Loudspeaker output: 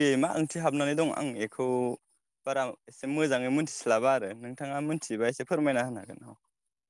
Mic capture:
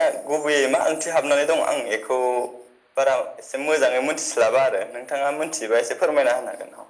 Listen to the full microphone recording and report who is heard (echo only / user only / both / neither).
echo only